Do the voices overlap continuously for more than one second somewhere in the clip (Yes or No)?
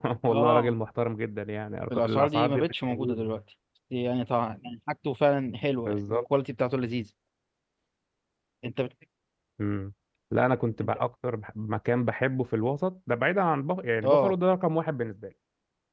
Yes